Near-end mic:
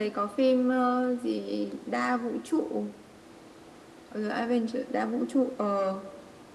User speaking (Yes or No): No